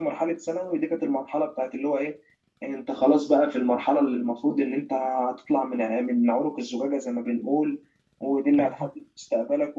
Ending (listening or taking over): listening